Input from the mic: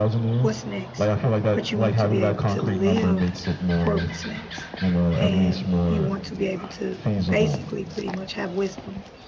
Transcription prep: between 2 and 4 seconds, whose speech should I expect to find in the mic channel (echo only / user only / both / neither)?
both